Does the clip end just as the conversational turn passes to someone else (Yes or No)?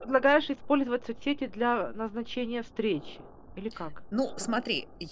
Yes